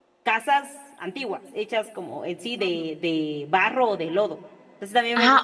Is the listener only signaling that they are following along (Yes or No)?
No